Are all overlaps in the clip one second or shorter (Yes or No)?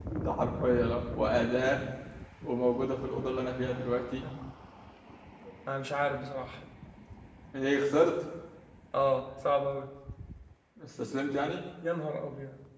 Yes